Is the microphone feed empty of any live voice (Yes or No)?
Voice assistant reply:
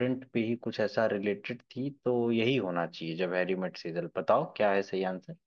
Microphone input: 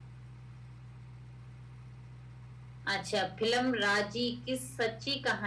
No